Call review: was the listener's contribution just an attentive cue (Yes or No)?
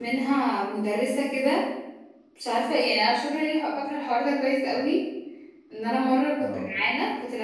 Yes